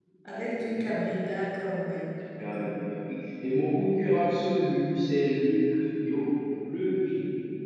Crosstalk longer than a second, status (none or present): none